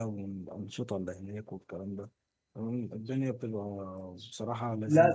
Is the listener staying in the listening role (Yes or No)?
No